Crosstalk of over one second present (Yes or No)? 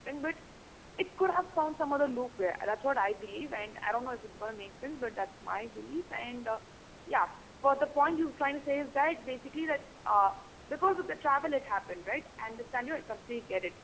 No